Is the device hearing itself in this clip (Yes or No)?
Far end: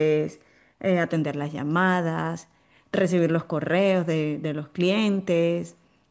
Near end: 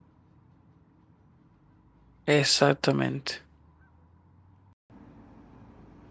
No